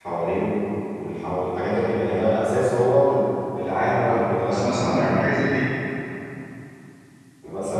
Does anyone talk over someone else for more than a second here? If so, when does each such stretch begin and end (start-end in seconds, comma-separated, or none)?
3.8-5.1